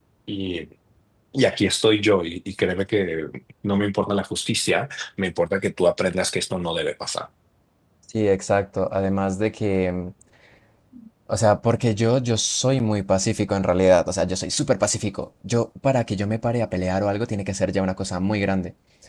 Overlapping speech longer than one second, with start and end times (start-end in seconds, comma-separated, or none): none